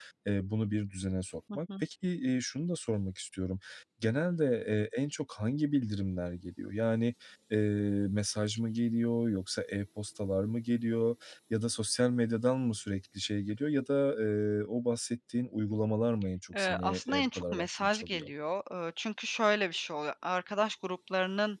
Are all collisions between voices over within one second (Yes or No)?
No